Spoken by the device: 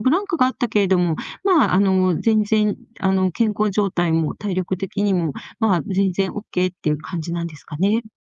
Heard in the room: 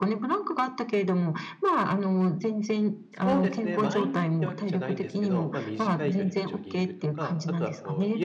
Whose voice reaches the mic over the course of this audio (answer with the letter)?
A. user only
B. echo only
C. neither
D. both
D